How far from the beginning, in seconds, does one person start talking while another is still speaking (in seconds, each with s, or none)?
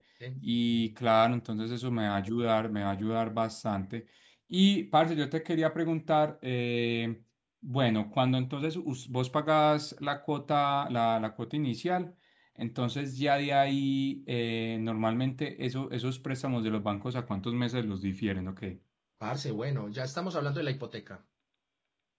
none